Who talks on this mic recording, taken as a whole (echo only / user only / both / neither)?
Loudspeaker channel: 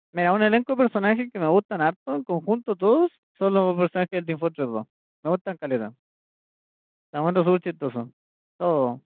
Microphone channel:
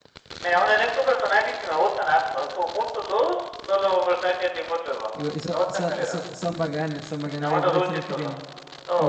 both